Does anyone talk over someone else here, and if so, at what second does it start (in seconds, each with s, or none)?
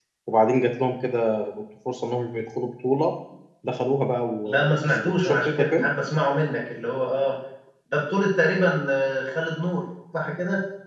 4.5 s